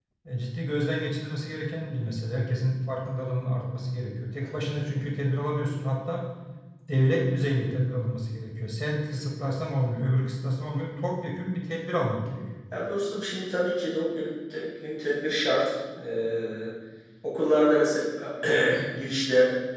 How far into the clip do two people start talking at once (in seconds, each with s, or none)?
none